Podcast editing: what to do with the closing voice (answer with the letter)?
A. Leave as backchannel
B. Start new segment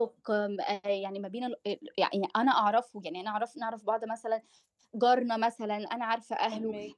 A